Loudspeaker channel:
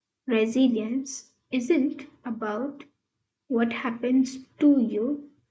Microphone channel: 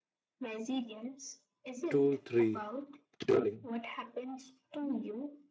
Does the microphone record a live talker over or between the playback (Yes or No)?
Yes